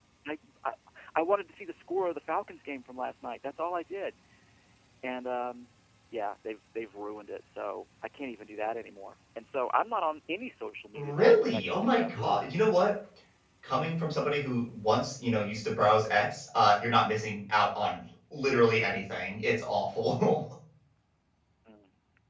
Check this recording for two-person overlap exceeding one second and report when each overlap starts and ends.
10.9-12.5

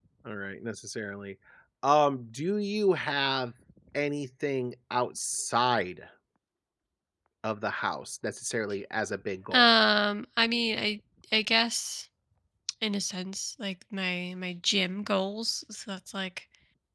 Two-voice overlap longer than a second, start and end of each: none

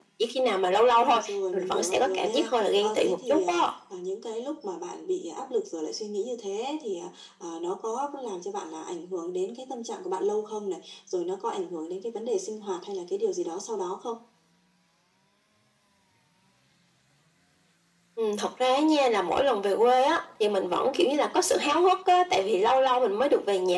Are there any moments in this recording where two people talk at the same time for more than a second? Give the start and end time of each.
0.8-3.7

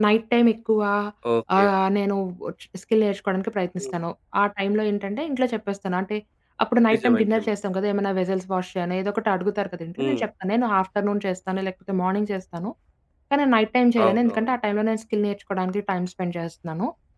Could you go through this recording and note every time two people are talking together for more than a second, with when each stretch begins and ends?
none

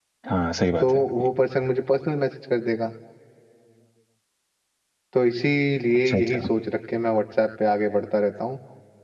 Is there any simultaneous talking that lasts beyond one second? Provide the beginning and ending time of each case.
none

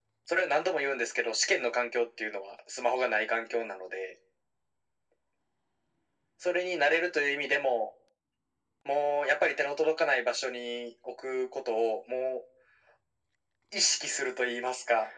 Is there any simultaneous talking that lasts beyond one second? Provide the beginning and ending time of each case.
none

